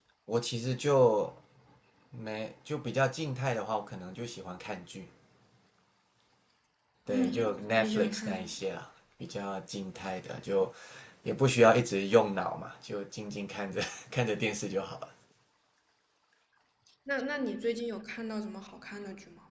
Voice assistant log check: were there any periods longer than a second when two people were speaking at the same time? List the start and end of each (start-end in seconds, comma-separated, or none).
7.1-8.5